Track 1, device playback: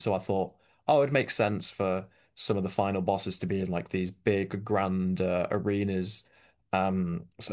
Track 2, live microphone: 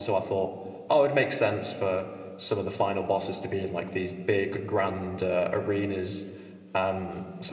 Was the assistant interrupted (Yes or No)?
No